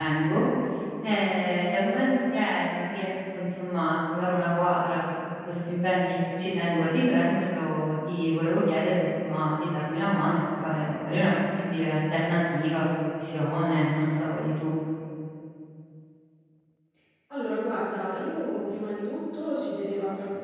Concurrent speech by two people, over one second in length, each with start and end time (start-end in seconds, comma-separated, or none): none